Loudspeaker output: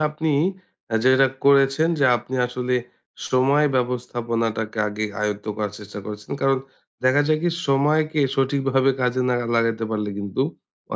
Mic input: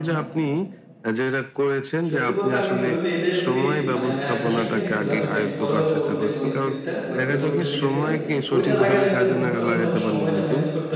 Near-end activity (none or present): present